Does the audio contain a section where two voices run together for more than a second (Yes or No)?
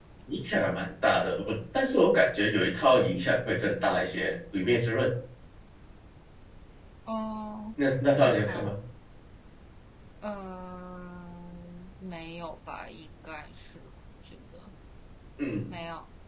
No